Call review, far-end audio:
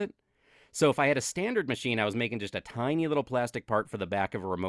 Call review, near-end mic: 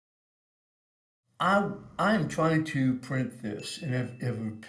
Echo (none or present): none